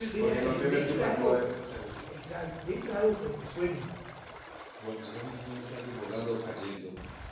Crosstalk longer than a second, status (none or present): present